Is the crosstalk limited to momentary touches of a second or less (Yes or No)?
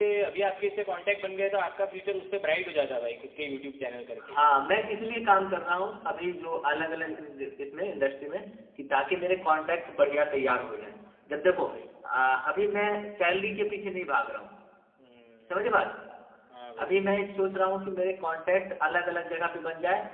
Yes